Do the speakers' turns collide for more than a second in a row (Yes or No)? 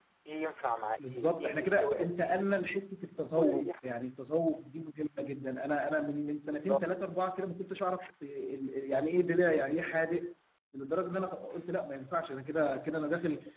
Yes